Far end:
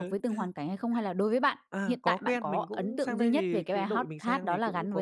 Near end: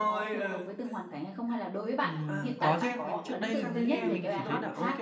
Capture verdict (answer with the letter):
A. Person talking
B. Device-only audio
A